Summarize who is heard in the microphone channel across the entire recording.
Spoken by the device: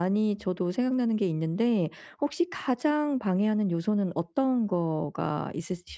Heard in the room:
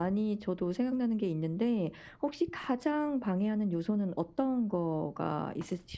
echo only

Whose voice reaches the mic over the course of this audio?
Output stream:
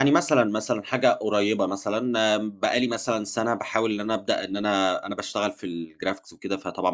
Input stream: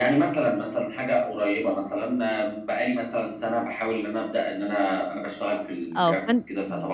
both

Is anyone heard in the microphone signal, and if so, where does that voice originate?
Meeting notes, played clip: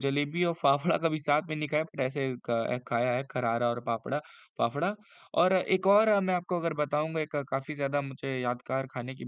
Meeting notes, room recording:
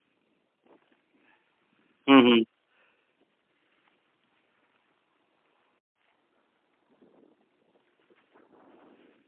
user only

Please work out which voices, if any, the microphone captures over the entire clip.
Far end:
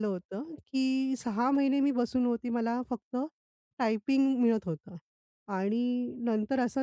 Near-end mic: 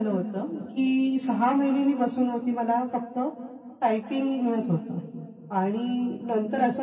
echo only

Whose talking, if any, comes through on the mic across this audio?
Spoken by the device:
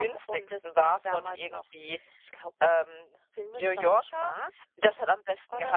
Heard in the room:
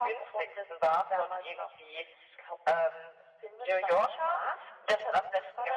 echo only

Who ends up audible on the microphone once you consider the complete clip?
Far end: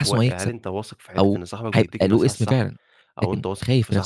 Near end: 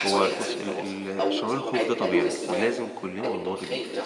both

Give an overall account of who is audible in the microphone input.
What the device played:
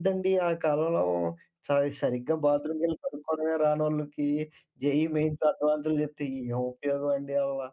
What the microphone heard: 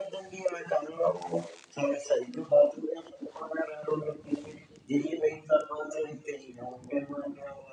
echo only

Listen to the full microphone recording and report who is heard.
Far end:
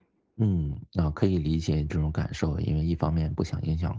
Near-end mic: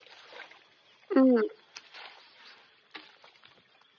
user only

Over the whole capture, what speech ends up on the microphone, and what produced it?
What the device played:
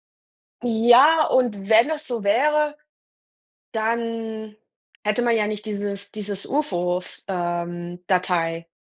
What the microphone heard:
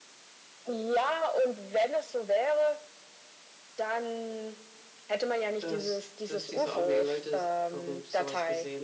both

